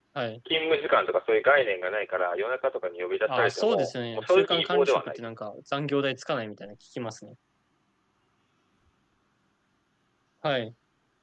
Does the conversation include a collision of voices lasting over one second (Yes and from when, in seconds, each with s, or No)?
Yes, from 3.3 s